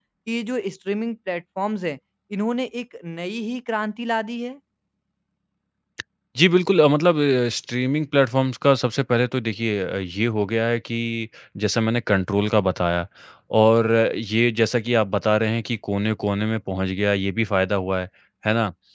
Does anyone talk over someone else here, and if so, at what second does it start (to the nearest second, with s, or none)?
none